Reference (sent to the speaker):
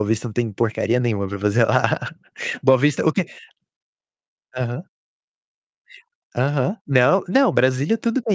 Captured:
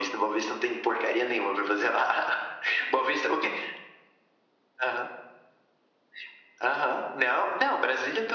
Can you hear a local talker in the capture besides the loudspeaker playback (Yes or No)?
No